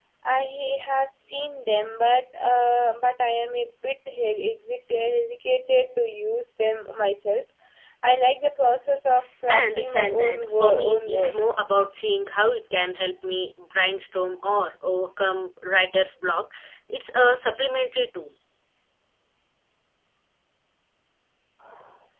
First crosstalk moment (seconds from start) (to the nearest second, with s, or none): 9 s